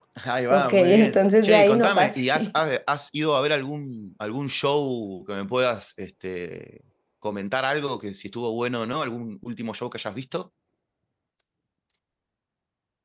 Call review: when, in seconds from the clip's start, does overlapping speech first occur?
0.5 s

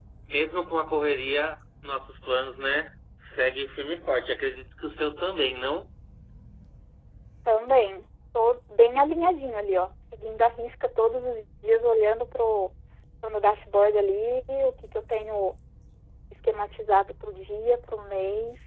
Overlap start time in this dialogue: none

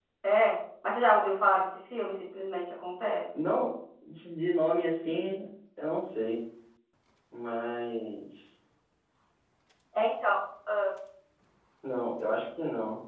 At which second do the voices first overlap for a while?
none

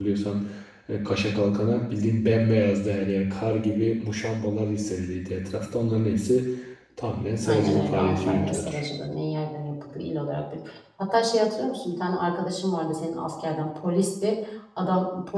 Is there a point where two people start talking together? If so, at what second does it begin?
7.5 s

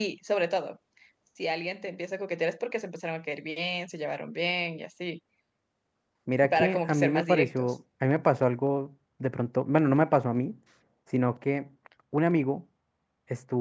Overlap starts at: 6.5 s

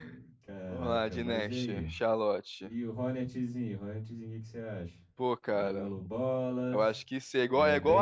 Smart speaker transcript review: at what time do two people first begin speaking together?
0.7 s

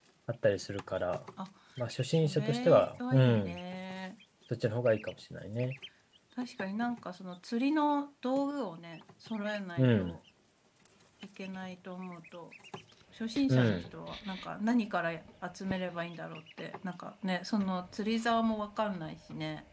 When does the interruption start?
2.1 s

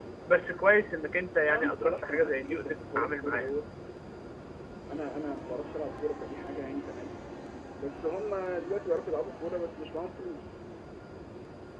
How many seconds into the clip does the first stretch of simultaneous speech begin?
1.5 s

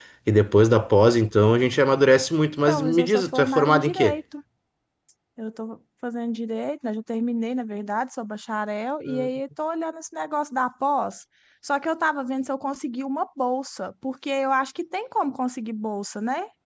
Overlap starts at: 2.7 s

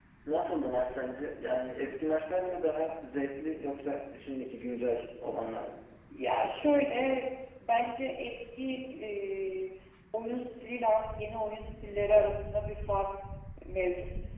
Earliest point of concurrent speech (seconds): none

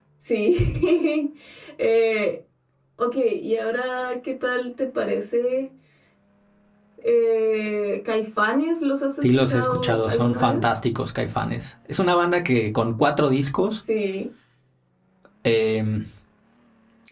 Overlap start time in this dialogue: 9.2 s

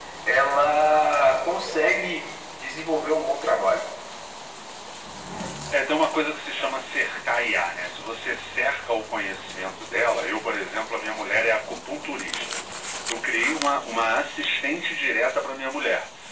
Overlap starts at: none

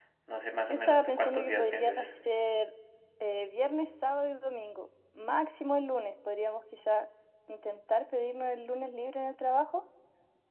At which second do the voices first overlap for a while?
0.7 s

